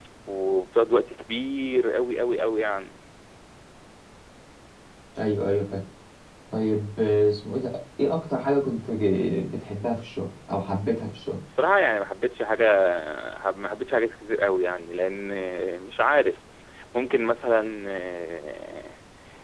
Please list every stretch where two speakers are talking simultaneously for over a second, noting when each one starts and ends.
none

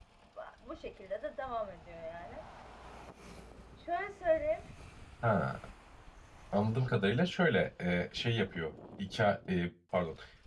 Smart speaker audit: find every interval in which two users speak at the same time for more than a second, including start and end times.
none

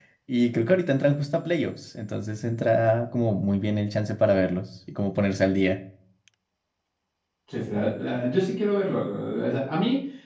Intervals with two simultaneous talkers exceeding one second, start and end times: none

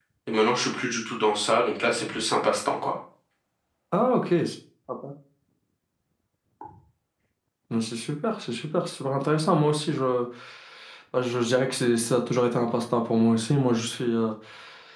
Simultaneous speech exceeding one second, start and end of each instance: none

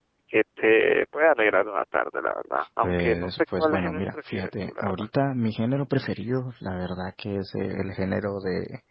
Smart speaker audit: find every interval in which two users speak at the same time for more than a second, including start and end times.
2.8-5.0

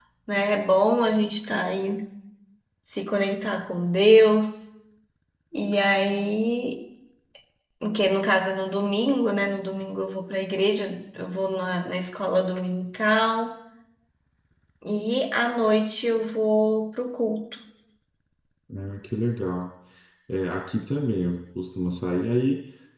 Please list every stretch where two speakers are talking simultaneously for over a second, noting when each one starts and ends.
none

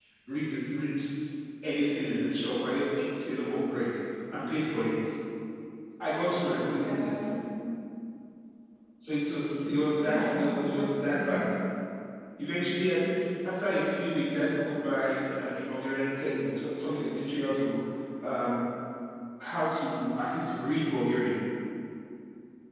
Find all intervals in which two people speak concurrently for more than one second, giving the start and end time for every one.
10.1-11.4

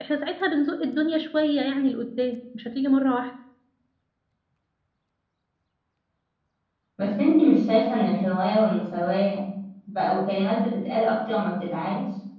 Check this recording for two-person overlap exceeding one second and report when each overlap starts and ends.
none

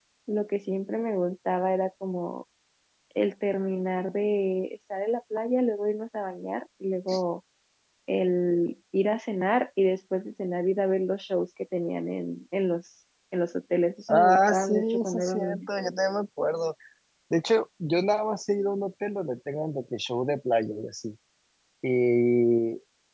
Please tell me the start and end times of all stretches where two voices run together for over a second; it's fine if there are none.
14.1-15.6

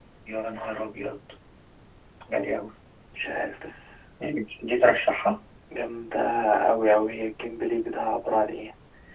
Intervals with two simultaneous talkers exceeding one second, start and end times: none

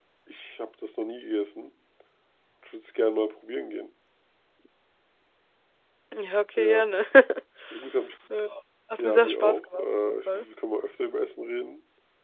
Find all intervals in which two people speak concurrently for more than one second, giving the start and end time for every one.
9.0-10.4

